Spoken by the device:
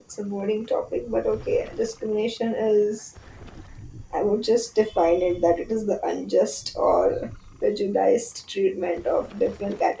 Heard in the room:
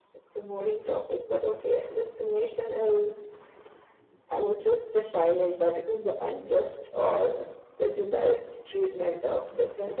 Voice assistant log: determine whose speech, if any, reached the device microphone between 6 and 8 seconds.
echo only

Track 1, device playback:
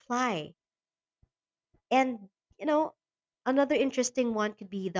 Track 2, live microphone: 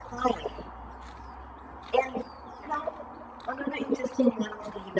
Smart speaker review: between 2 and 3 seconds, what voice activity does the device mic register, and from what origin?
echo only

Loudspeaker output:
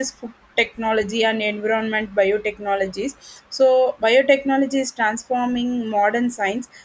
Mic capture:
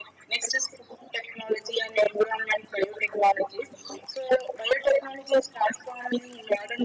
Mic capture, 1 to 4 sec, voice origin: echo only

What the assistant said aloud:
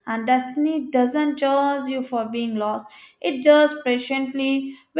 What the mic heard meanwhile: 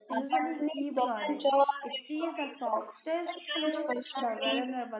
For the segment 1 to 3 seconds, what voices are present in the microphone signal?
both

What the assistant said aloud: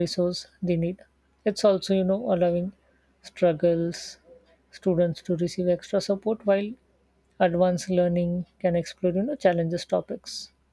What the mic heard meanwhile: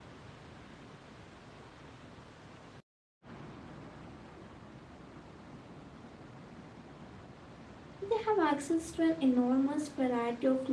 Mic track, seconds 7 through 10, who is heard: user only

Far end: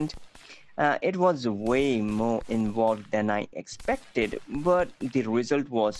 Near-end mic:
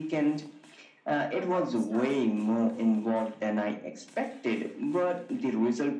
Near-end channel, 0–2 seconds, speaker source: both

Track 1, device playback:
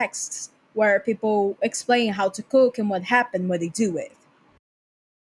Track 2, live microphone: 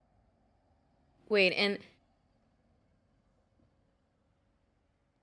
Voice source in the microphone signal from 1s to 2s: user only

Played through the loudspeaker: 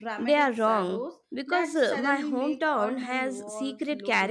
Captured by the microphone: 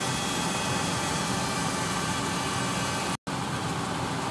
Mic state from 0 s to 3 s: neither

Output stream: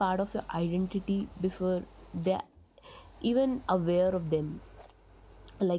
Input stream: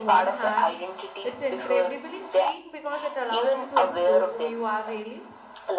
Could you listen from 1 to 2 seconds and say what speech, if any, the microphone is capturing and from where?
both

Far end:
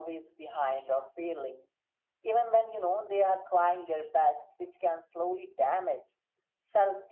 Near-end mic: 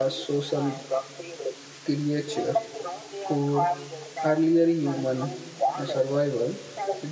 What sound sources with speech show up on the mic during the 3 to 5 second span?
both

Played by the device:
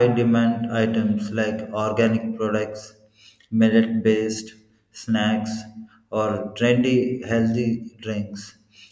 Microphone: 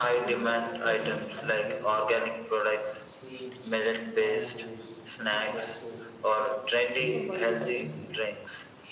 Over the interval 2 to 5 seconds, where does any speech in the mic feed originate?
both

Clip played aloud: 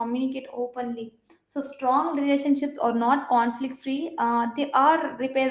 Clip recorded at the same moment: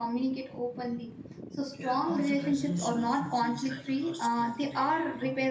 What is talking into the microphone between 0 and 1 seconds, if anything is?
echo only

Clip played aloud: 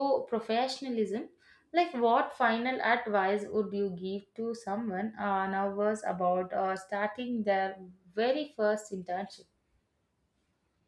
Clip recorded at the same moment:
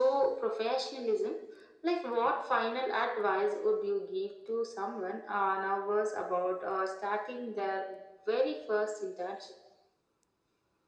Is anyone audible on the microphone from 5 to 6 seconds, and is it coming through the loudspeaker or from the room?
echo only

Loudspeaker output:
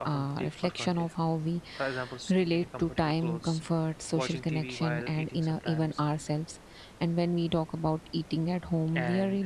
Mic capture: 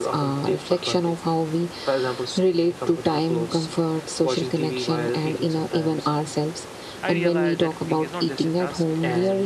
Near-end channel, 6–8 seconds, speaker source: both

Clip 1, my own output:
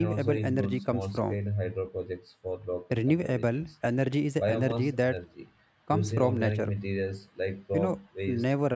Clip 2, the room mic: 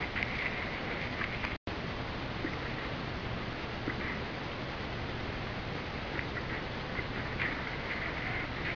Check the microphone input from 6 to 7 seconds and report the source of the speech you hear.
neither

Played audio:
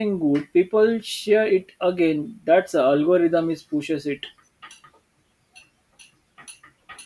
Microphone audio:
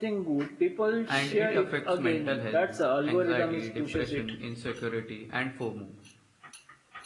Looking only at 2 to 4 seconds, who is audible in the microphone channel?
both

